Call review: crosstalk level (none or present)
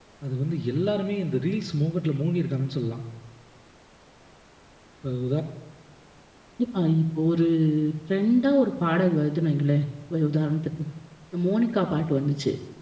none